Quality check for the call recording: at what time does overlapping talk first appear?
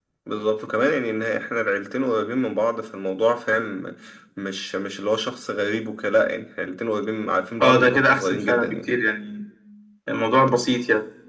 7.6 s

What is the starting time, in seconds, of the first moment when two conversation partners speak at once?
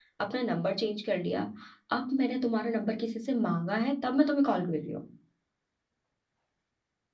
none

